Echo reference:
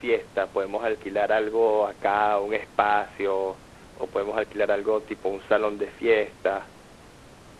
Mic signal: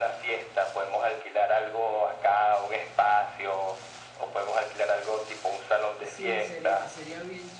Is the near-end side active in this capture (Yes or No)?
Yes